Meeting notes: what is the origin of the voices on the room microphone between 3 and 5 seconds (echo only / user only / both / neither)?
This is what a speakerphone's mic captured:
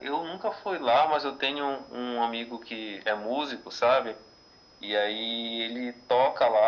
echo only